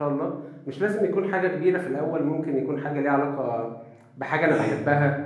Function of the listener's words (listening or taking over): listening